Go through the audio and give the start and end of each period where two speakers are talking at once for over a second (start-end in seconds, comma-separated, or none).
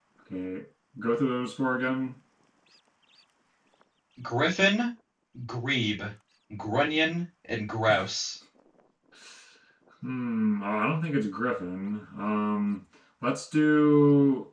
none